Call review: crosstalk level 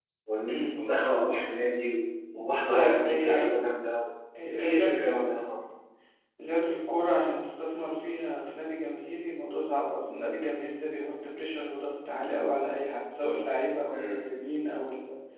present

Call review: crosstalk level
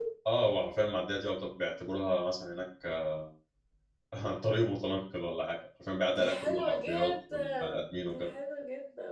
present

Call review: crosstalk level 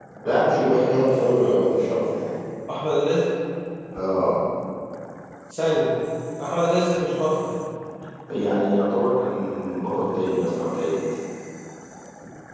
none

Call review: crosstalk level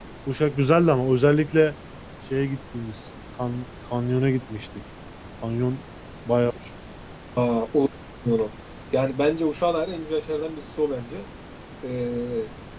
none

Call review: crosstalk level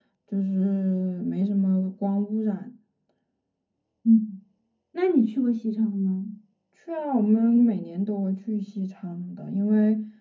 none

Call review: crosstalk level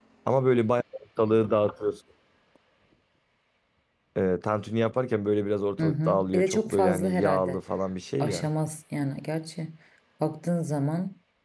present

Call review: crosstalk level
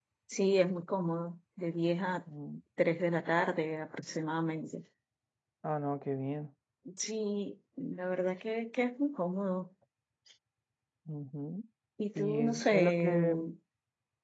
present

